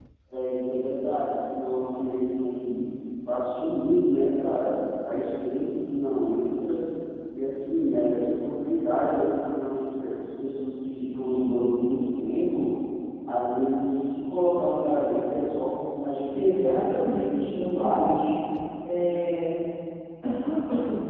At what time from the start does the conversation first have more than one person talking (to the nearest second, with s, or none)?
16 s